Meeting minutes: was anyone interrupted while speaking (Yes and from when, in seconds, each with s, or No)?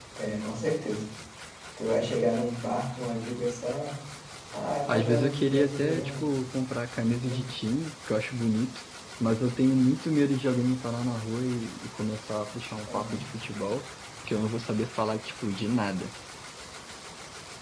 Yes, from 4.9 s